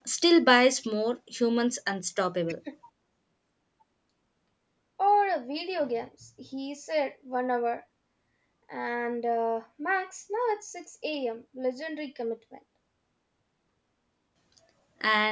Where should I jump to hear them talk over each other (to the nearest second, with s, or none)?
none